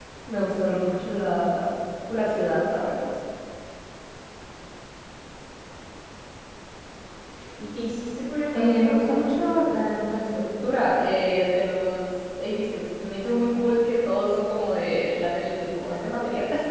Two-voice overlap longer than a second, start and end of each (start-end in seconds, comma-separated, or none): 8.5-10.8